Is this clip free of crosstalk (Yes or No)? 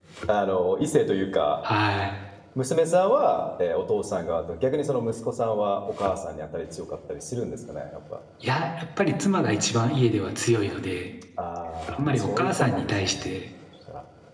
No